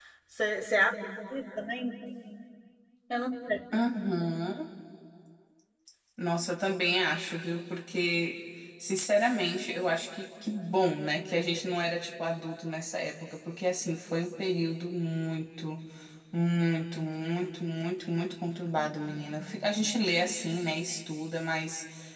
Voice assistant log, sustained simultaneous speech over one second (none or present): none